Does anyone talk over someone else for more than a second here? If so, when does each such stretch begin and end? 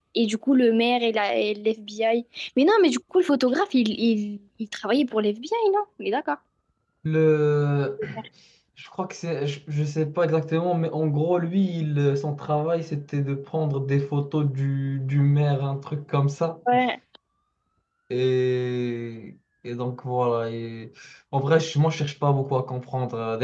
none

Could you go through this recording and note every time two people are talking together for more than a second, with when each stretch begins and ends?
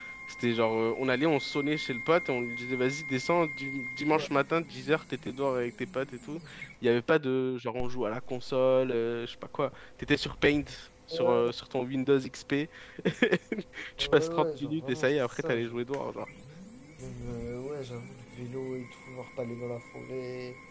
14.0-15.8

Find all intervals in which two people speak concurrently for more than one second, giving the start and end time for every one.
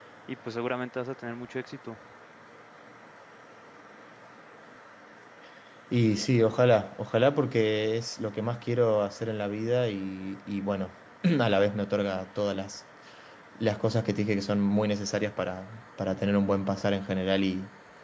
none

